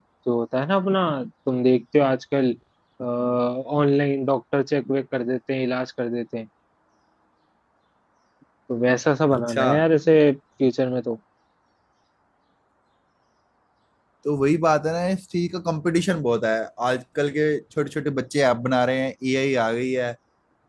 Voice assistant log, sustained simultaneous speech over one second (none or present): none